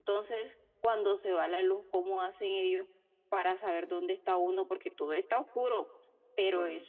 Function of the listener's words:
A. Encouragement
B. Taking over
A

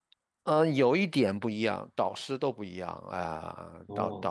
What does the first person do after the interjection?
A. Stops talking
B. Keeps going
A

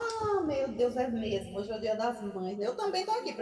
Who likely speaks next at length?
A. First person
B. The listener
A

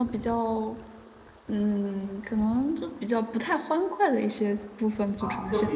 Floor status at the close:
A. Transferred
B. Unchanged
A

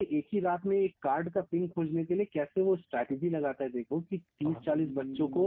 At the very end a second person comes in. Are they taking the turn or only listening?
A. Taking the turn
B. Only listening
B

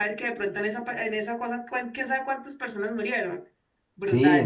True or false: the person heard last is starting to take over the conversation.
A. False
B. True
B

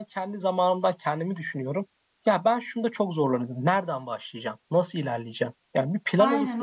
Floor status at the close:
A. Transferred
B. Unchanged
A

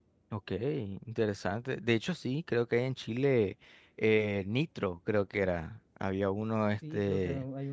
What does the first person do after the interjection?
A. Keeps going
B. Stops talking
B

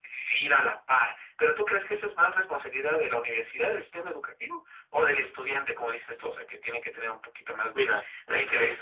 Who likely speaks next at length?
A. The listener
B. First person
A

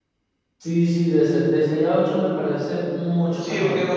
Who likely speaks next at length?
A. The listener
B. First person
A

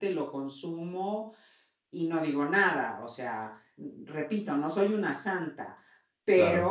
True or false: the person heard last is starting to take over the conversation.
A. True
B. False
B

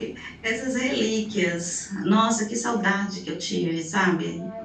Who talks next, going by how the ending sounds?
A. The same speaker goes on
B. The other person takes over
B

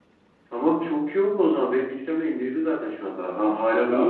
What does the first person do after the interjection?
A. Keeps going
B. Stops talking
B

